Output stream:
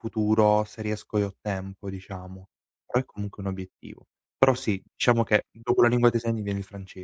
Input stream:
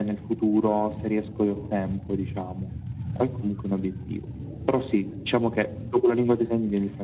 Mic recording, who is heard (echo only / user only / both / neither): echo only